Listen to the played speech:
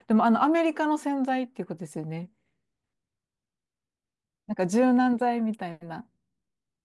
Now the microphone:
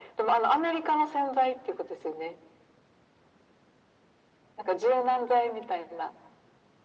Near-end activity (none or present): none